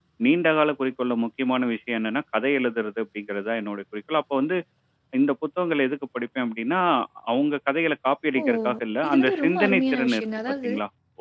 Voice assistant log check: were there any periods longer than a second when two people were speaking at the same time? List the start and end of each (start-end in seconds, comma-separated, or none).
9.1-10.7